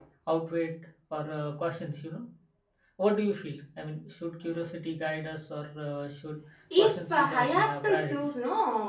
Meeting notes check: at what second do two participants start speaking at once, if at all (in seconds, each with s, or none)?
6.8 s